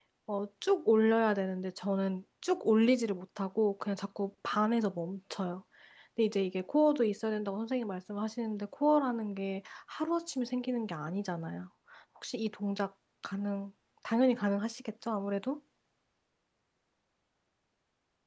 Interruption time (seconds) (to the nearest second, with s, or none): none